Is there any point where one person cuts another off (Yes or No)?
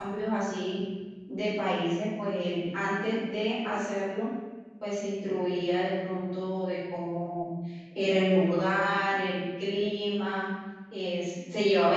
No